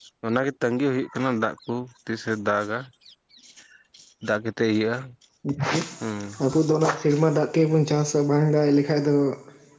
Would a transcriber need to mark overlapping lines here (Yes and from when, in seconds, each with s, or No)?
No